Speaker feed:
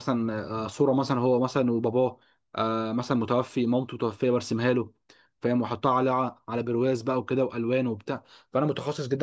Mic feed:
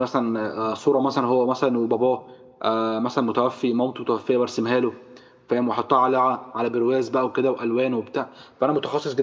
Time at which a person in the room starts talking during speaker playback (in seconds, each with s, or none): none